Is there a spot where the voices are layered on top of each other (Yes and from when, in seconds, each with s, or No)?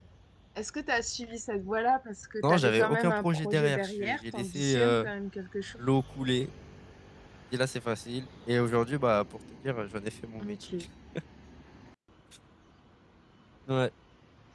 Yes, from 2.4 s